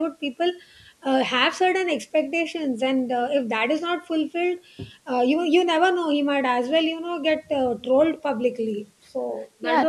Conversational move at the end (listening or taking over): taking over